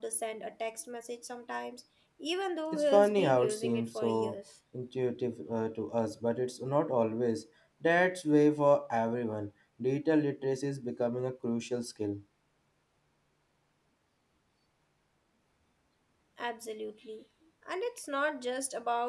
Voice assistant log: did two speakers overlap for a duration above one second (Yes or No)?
Yes